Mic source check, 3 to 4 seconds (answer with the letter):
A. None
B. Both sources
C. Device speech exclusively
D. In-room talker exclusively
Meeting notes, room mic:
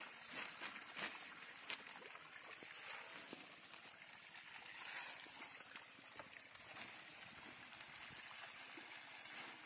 A